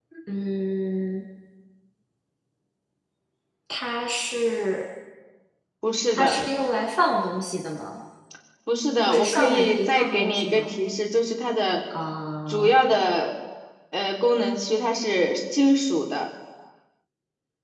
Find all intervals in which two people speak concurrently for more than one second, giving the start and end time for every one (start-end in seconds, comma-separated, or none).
9.1-10.7